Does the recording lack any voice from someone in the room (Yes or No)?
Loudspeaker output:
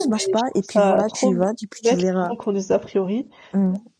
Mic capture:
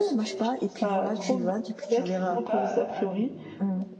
No